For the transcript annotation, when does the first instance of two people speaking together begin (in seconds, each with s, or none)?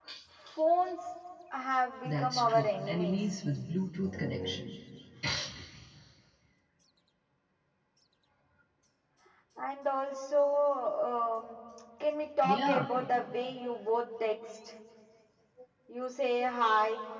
2.0 s